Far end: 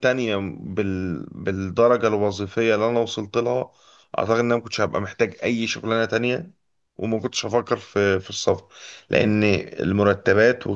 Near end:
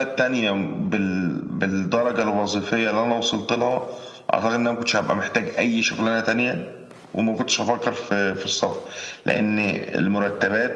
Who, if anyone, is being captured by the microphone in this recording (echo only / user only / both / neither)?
echo only